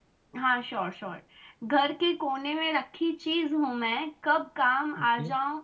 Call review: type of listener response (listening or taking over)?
listening